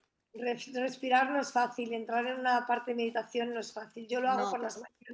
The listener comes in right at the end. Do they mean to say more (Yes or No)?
No